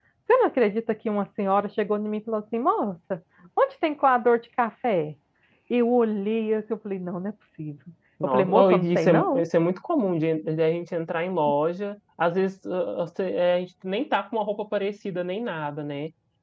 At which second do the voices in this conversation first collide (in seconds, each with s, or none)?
8.2 s